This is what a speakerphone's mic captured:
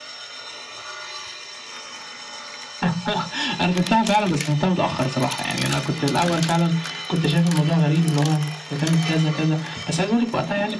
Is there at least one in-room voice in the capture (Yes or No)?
No